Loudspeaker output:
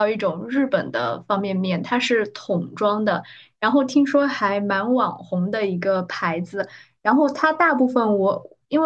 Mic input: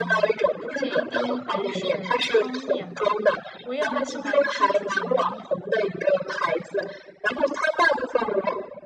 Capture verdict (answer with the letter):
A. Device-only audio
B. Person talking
B